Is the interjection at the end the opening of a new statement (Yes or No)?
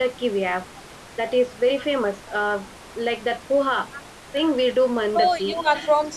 Yes